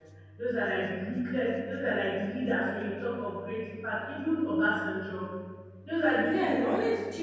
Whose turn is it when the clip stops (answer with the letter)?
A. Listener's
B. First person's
A